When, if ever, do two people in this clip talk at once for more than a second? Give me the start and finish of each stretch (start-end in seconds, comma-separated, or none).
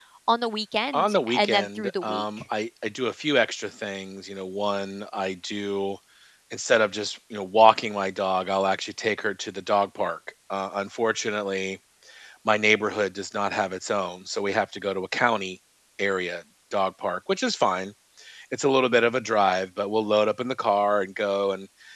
0.9-2.2